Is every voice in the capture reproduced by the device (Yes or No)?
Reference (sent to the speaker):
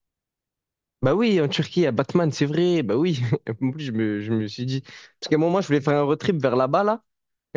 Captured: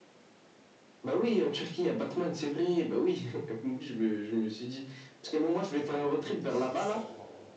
No